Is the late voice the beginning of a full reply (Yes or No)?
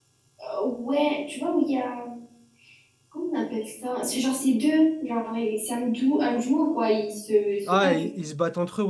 Yes